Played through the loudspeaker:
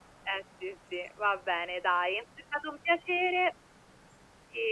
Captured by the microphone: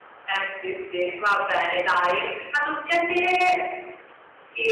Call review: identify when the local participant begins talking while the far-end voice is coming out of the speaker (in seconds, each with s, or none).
none